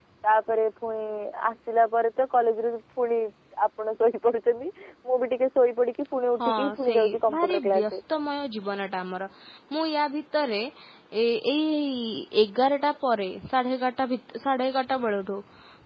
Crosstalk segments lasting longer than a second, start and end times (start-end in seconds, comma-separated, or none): 6.4-8.0